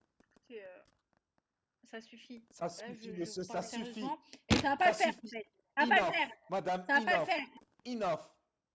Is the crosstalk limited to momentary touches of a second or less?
No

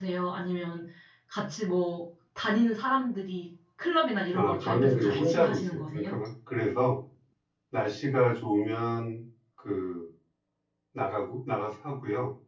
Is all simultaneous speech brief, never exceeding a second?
No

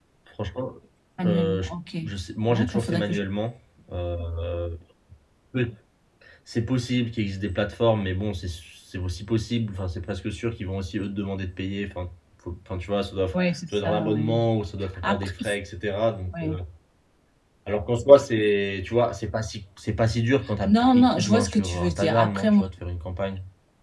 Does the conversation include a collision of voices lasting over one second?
Yes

